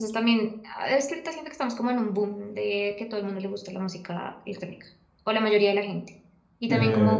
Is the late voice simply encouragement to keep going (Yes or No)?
Yes